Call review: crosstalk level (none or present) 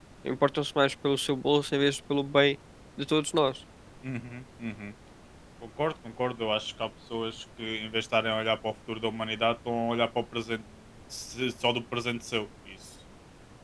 none